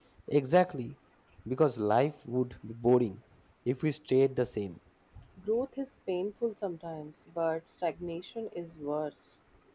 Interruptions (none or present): none